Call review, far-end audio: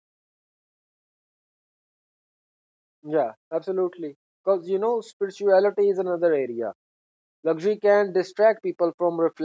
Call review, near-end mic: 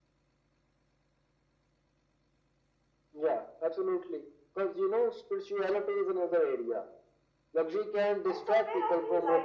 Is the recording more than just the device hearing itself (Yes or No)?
Yes